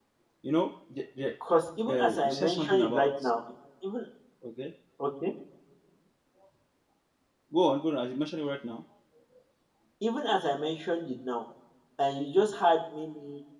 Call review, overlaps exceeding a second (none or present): present